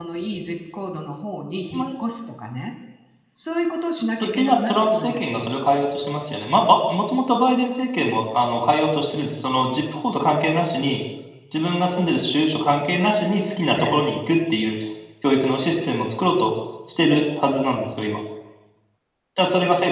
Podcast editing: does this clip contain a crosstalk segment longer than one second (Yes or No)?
Yes